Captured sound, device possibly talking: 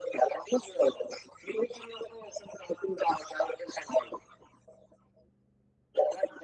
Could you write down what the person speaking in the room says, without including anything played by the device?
none

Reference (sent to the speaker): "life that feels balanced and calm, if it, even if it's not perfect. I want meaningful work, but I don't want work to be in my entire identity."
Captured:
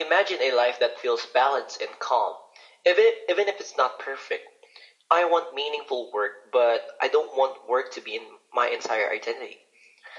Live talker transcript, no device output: none

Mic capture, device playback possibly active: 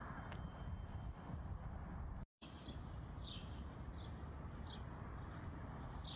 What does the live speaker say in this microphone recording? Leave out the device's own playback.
none

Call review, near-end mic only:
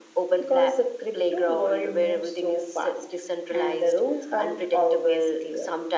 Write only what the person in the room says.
none

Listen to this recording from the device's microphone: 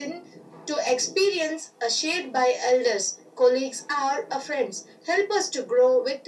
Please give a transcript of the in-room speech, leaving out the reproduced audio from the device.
none

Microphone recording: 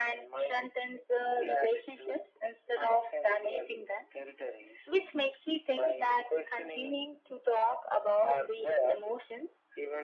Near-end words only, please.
none

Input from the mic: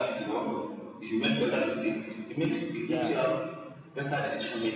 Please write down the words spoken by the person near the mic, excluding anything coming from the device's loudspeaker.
Yeah.

